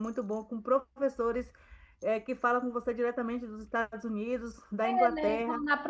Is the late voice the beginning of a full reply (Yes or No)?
Yes